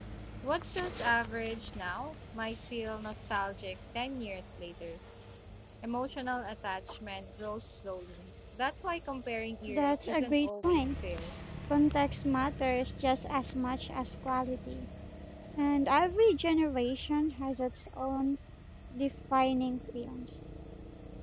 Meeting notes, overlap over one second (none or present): present